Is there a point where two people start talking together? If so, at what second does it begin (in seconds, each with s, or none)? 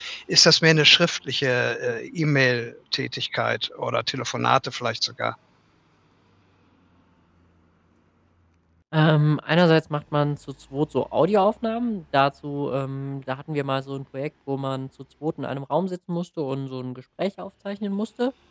none